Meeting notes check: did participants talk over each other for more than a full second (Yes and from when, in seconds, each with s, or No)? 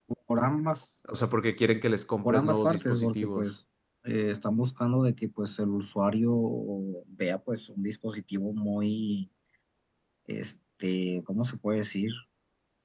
Yes, from 2.2 s